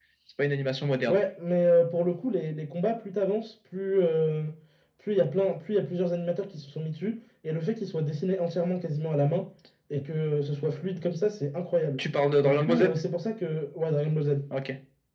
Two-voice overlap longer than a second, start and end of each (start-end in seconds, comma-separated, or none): none